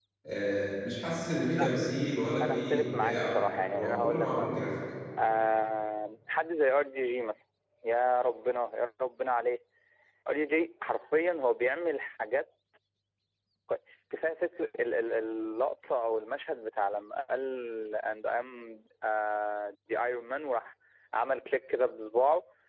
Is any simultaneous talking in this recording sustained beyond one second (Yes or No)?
Yes